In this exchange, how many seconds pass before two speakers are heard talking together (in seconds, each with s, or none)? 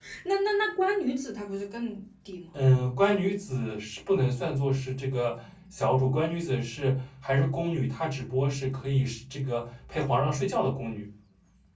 none